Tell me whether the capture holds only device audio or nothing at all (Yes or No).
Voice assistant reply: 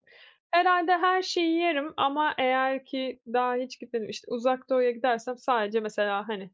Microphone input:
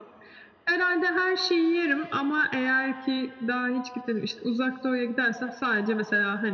Yes